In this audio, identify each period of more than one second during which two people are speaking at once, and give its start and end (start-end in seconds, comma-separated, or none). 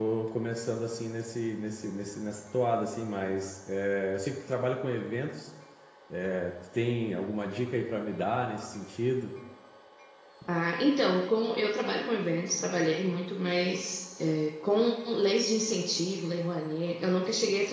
none